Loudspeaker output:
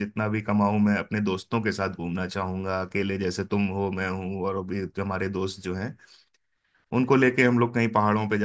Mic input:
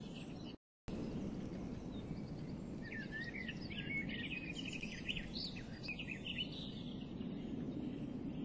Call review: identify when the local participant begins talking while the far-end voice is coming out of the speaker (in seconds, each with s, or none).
none